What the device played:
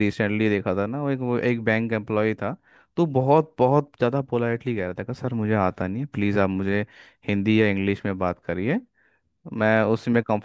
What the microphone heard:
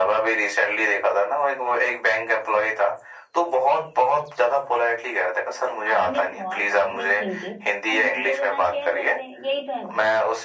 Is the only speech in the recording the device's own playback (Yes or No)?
No